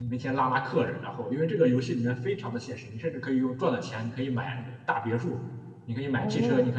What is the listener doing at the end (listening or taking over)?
listening